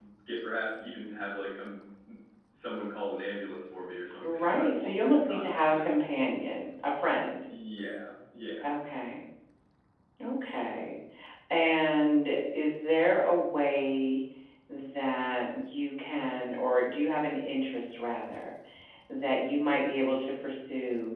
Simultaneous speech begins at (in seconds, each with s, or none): 4.2 s